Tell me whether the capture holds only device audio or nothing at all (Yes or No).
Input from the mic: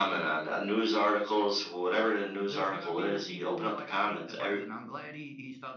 No